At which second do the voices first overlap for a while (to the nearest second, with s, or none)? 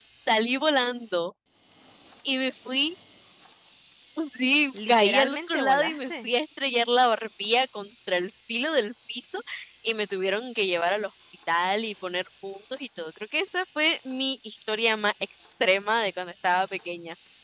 5 s